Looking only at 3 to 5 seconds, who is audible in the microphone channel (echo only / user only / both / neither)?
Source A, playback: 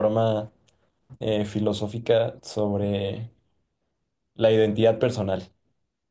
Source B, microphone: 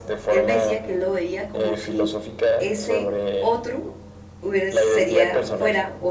both